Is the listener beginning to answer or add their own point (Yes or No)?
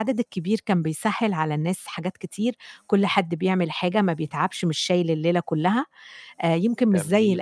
No